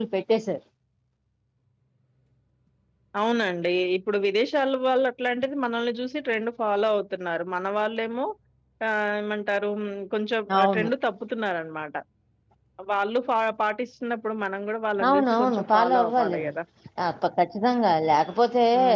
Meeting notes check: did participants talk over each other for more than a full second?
Yes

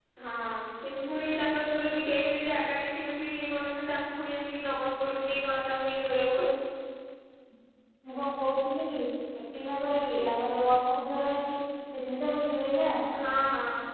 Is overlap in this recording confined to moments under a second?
Yes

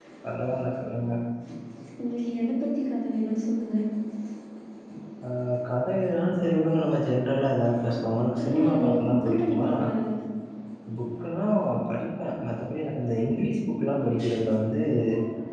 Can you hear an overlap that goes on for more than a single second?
Yes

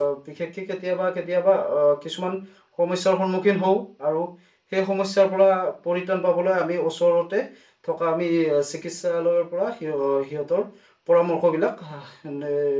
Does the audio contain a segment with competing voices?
No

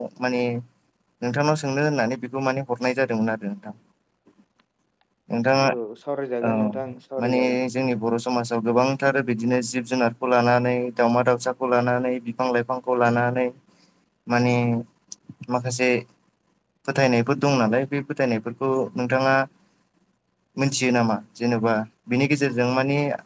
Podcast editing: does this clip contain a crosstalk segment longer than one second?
No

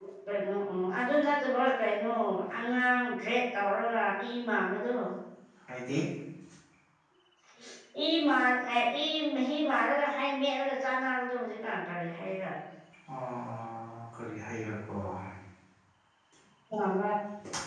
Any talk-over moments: No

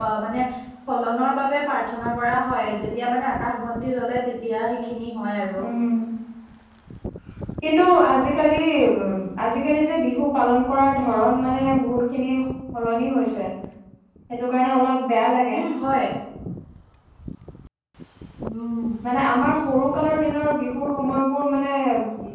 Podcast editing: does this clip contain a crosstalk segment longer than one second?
No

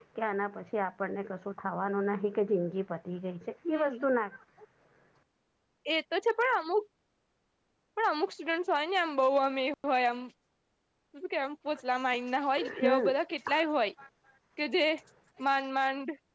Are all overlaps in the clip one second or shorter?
Yes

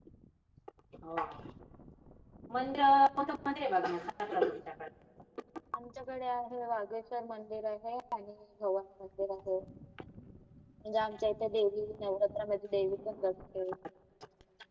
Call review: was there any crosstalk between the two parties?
No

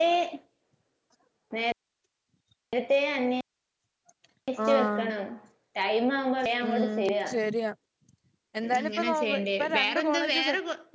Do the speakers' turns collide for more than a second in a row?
Yes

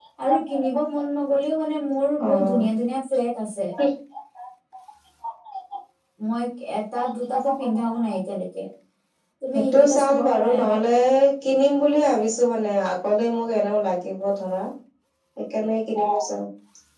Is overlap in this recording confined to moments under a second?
No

